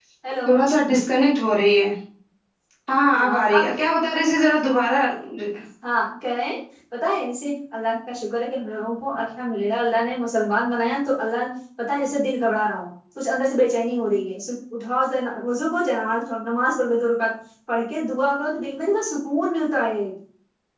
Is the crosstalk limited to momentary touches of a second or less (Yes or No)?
Yes